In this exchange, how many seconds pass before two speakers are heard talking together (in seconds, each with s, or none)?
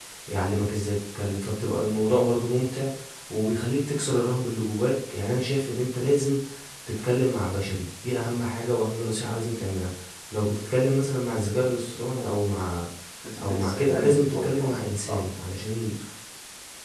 13.4 s